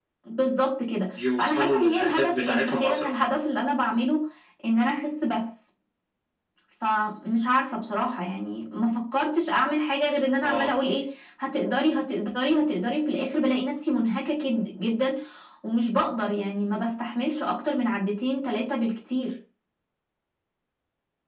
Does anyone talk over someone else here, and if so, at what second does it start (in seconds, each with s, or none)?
1.2 s